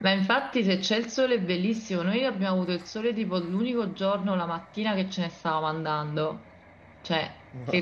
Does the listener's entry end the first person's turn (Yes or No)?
No